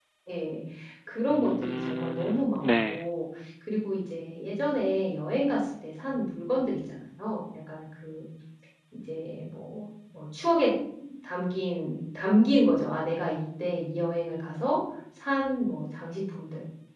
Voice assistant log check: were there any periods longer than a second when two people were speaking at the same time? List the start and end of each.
1.3-3.0

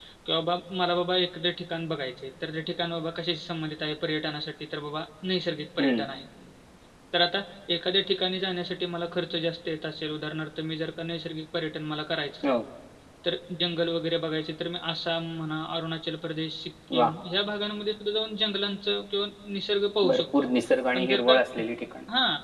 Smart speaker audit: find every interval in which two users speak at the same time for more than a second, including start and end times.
none

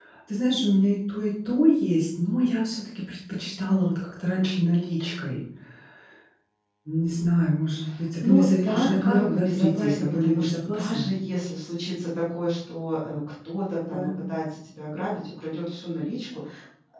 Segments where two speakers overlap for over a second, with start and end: 8.2-11.1

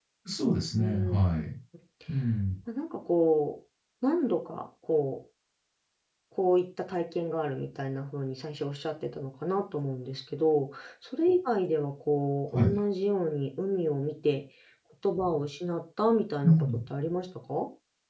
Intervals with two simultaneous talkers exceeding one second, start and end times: none

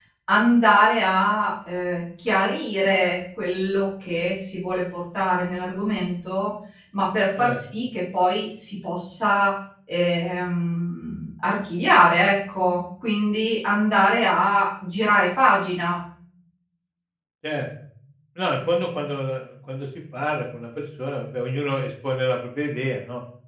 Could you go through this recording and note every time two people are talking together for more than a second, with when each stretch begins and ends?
none

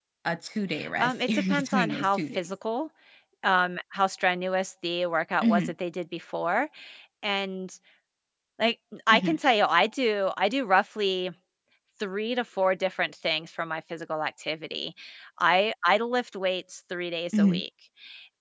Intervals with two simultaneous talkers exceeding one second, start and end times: 1.0-2.5

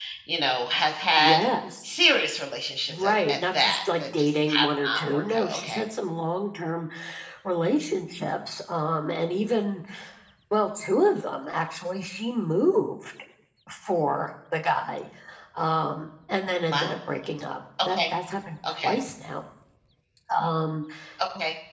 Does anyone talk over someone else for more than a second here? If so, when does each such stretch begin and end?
2.9-5.8

